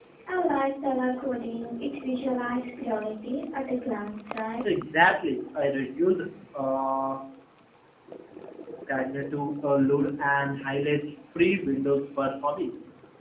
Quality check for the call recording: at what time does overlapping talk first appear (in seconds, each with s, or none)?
none